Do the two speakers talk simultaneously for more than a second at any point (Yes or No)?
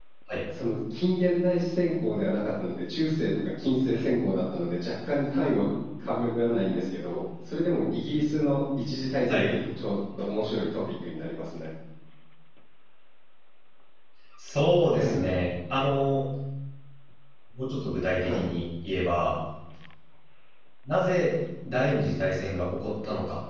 No